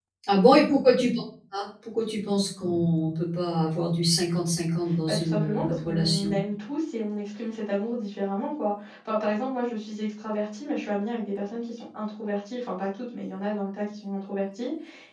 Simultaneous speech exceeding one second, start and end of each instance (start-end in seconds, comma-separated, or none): 5.1-6.4